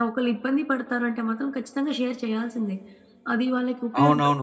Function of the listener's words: taking over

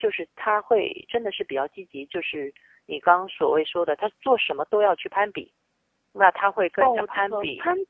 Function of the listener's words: taking over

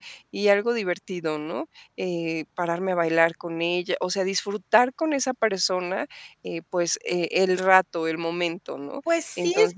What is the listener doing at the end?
taking over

